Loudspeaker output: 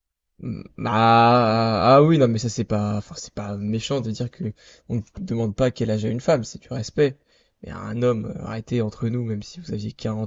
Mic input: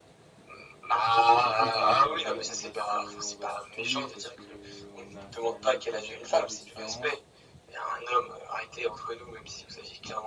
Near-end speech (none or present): present